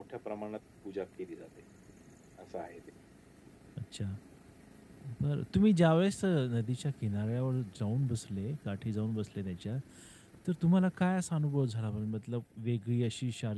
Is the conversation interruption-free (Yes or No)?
Yes